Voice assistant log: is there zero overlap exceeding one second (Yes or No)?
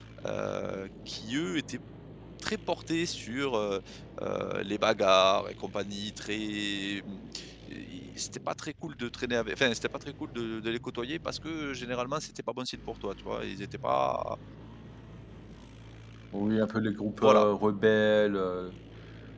Yes